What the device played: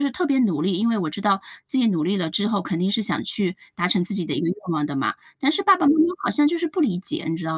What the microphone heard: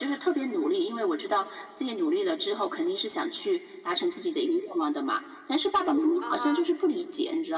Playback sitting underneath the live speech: No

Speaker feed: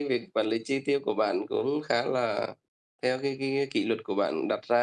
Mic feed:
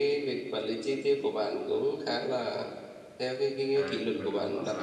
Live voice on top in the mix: No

